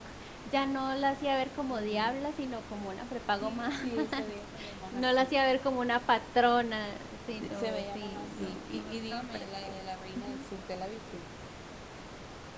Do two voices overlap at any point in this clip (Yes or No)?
Yes